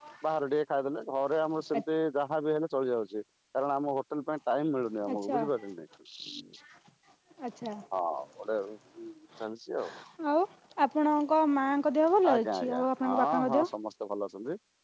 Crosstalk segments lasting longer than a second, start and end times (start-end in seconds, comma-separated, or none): 12.3-13.7